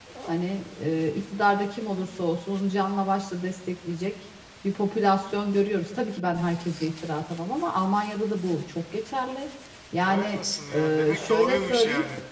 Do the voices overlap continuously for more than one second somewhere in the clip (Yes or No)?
Yes